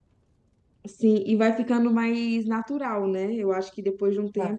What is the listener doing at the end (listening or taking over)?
listening